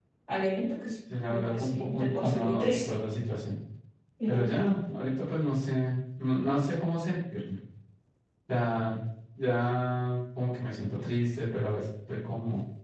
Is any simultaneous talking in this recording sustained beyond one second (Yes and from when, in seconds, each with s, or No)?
Yes, from 1.3 s